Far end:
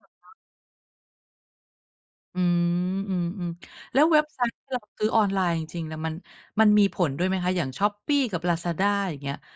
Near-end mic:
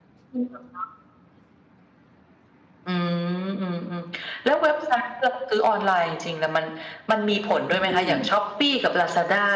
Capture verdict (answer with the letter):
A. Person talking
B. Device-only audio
A